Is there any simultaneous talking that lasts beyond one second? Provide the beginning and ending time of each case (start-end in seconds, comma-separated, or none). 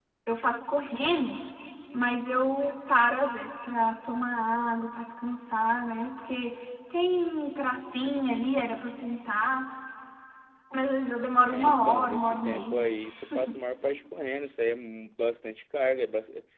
11.5-12.8